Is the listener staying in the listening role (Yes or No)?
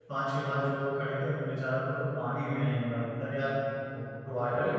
Yes